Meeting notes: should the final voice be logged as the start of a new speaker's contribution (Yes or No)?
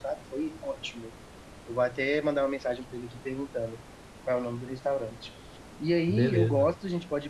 No